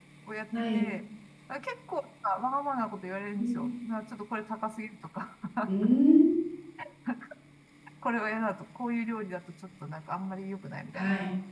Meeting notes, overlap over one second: none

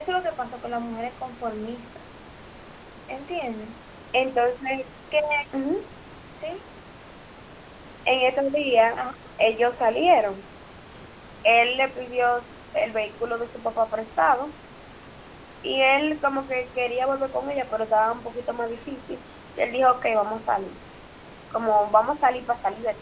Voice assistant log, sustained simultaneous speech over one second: none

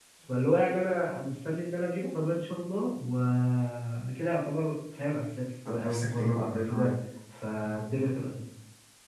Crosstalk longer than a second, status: present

